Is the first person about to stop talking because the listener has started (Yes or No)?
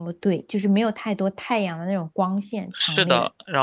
Yes